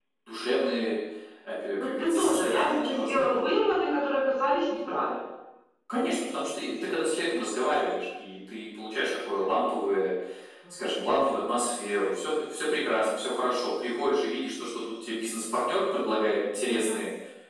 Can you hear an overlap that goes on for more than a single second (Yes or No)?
Yes